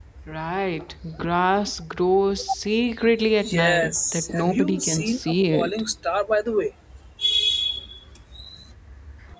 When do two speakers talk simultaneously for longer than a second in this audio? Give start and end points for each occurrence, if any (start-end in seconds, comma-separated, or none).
3.5-5.7